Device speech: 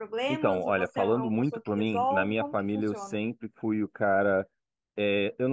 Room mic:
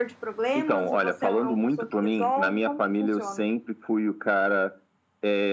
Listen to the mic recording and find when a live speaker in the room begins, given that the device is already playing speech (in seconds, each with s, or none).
none